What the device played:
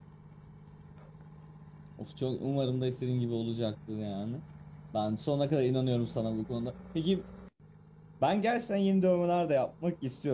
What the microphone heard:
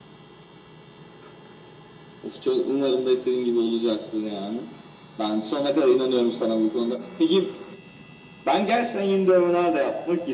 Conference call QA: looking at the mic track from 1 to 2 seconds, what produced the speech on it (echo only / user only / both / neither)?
neither